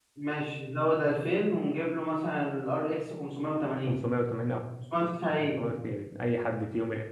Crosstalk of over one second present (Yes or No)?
No